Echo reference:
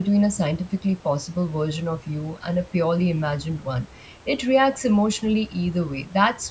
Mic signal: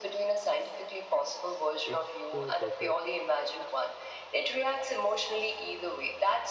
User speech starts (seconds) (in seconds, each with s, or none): 1.8 s